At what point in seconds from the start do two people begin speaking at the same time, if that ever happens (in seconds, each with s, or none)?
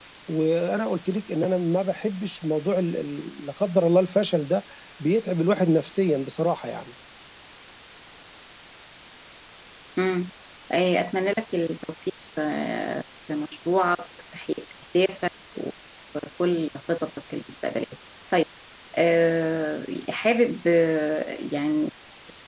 none